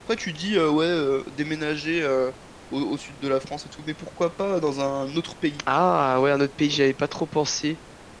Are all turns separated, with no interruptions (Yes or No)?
Yes